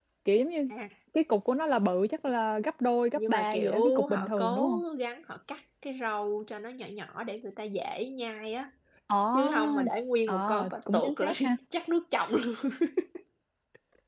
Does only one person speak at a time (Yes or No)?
No